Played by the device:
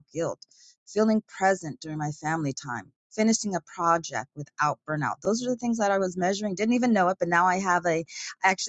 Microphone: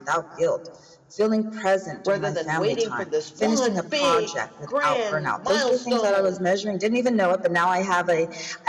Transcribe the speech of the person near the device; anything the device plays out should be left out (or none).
rather than waiting for this one big grand milestone.